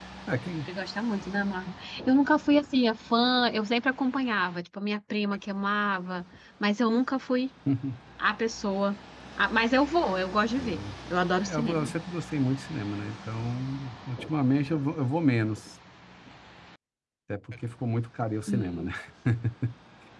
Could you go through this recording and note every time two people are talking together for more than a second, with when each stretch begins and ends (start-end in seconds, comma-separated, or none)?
none